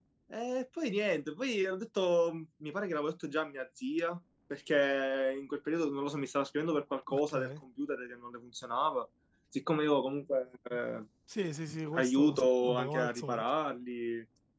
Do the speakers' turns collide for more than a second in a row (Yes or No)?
Yes